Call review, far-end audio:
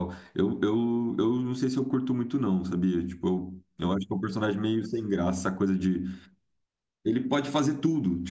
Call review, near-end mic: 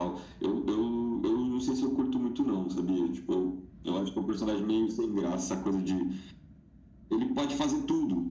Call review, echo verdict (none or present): present